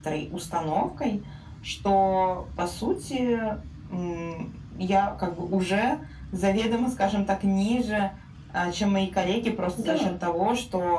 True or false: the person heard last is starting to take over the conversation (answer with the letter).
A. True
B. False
B